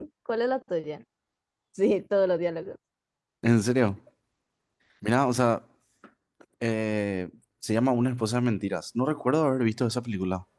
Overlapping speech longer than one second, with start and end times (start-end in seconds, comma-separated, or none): none